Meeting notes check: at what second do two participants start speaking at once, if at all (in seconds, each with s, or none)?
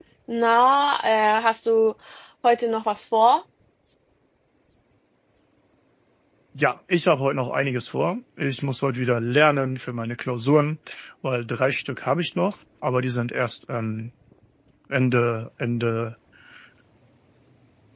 none